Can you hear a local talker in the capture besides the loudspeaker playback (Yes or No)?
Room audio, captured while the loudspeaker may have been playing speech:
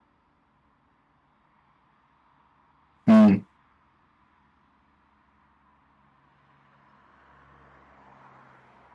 Yes